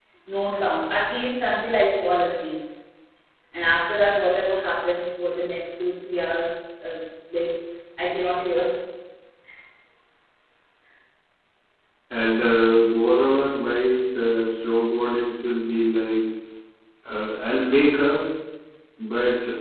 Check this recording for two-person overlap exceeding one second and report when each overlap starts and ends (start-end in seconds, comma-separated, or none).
none